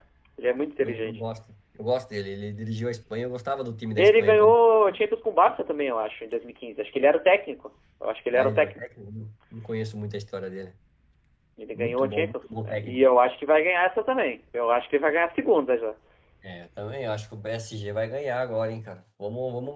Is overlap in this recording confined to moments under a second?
No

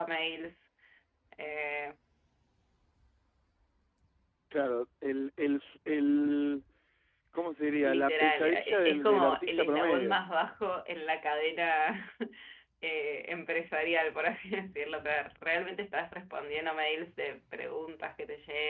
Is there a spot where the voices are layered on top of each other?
Yes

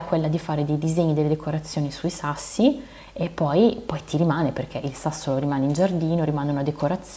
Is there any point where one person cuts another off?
No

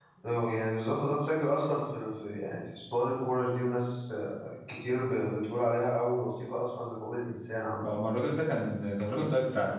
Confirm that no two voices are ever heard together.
Yes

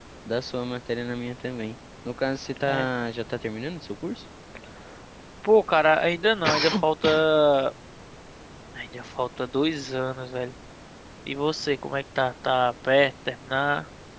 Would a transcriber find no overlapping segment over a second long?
Yes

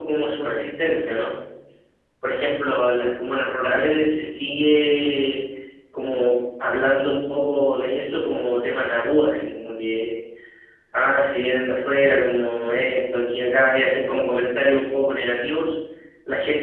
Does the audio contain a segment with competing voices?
No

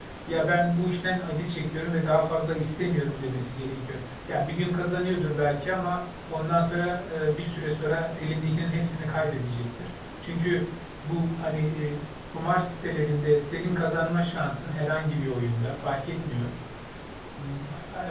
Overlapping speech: No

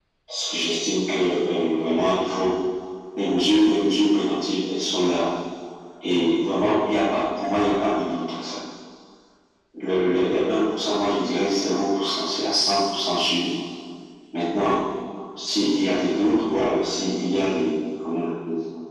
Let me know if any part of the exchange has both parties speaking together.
No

